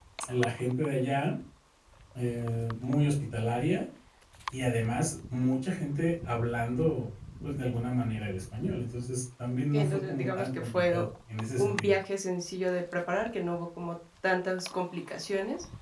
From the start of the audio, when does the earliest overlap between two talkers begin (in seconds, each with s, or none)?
9.7 s